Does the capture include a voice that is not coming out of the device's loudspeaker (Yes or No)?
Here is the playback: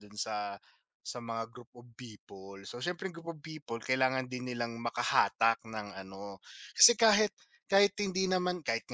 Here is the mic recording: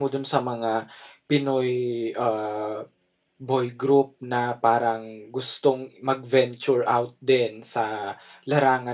Yes